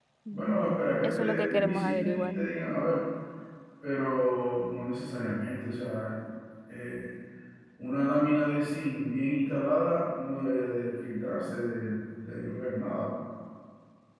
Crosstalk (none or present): present